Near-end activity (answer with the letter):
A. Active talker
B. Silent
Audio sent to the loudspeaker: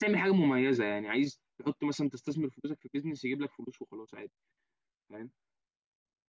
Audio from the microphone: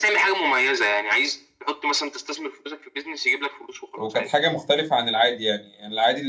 A